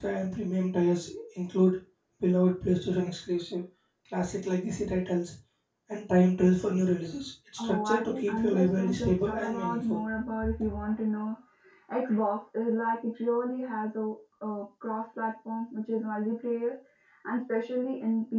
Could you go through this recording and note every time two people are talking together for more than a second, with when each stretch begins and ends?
7.6-10.0

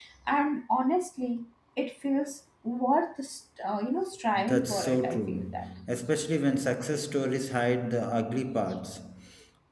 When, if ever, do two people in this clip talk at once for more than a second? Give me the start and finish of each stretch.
4.3-5.7

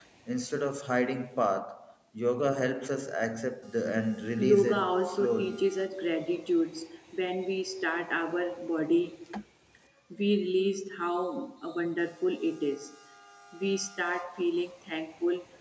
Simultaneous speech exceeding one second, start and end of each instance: 4.4-5.6

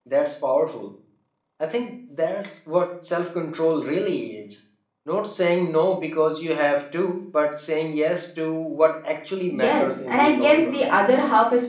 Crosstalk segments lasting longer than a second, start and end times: 9.5-10.8

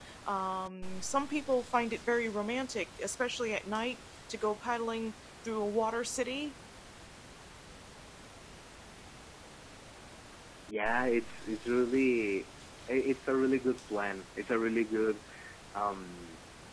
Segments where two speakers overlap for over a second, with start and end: none

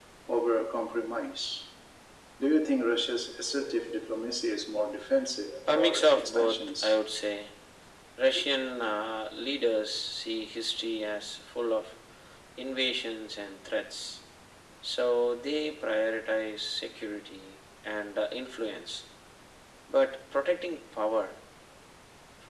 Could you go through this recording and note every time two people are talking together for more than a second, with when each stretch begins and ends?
5.7-6.9

